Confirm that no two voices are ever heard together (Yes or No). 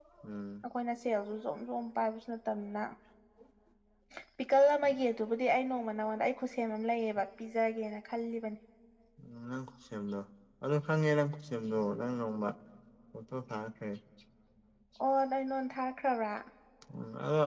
Yes